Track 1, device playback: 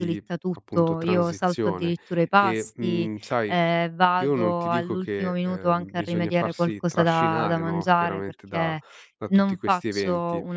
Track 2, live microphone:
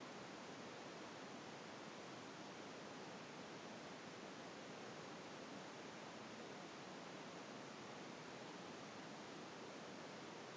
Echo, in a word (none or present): none